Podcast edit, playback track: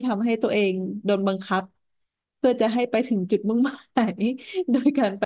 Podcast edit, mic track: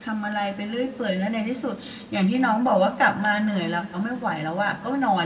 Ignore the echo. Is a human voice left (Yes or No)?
Yes